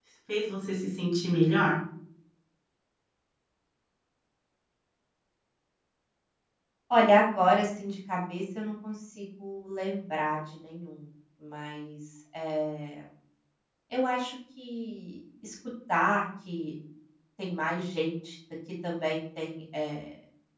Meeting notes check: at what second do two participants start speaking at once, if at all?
none

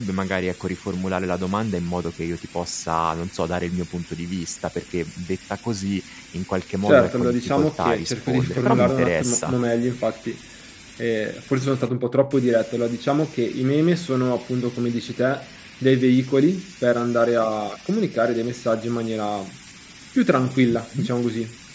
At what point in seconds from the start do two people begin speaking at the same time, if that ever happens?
6.9 s

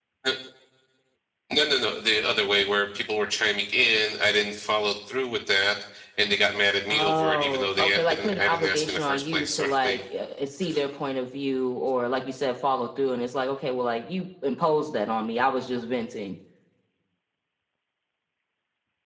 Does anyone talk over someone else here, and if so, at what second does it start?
6.9 s

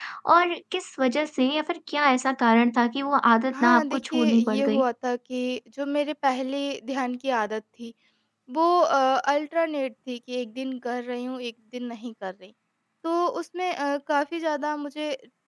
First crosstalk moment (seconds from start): 3.5 s

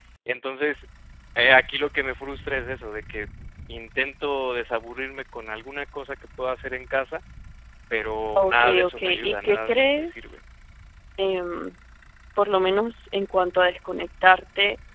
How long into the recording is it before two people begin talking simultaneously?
8.4 s

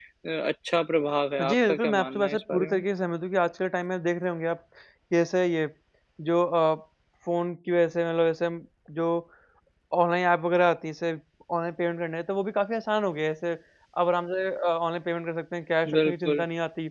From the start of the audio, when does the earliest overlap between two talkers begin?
1.4 s

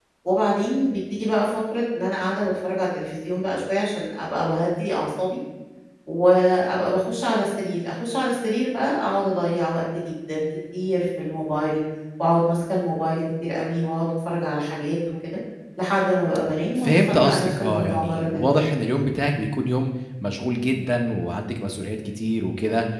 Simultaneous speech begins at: 16.8 s

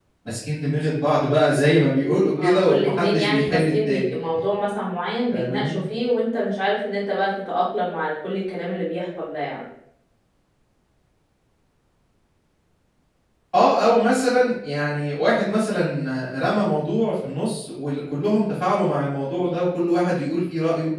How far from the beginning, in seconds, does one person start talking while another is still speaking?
2.4 s

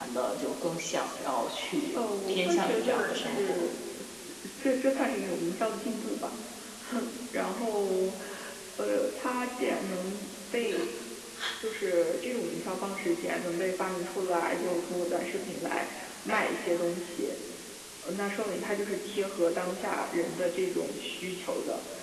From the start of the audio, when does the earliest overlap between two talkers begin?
1.9 s

